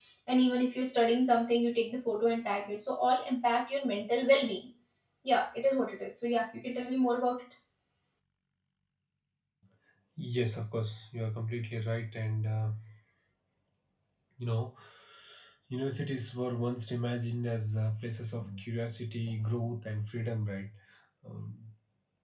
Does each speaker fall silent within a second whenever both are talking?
Yes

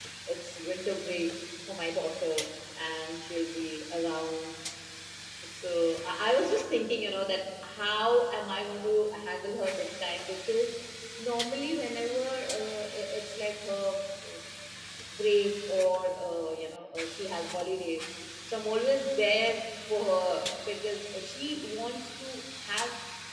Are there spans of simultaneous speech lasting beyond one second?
No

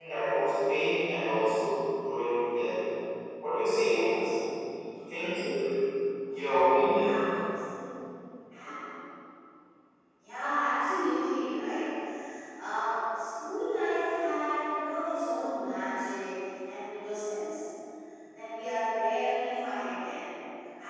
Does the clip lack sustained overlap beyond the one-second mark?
Yes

